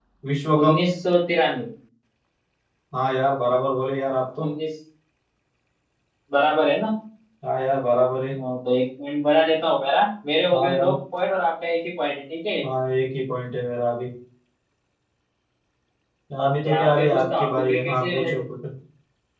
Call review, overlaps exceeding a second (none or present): present